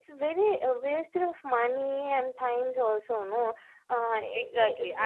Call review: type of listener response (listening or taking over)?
taking over